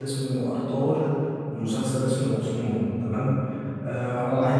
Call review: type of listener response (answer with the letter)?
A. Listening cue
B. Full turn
A